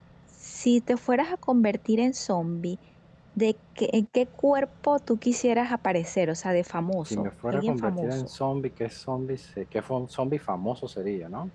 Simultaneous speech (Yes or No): Yes